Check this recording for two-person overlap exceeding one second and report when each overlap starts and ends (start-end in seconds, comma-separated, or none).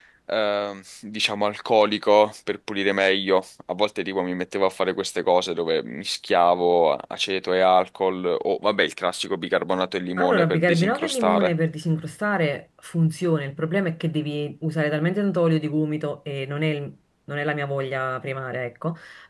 10.2-11.5